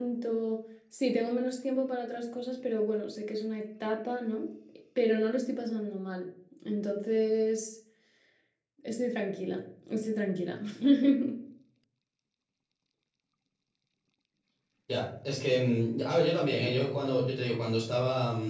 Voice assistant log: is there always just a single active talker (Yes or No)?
Yes